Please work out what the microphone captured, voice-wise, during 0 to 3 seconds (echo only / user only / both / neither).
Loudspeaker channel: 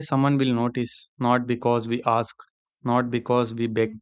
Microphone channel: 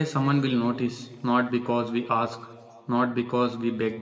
echo only